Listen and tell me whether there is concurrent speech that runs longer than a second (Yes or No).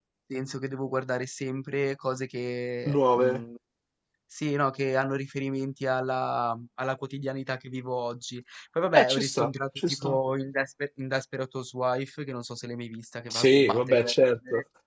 Yes